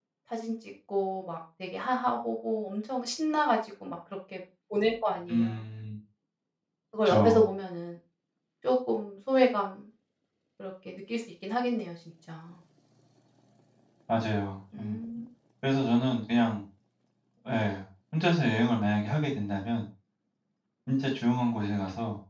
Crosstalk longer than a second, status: none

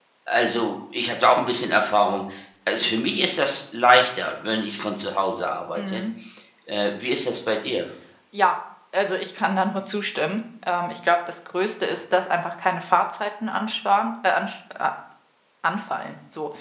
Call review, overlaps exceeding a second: none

